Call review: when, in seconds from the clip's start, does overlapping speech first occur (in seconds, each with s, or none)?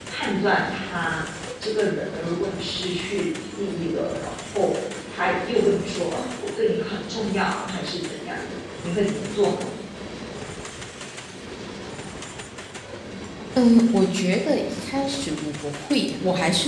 none